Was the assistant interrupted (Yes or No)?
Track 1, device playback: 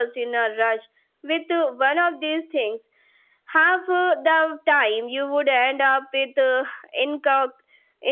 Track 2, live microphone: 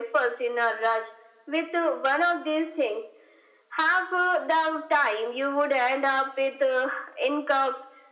No